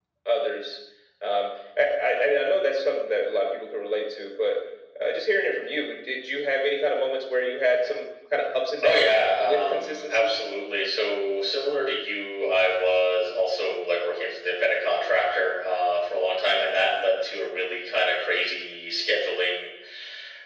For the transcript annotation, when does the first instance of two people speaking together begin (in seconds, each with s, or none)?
8.8 s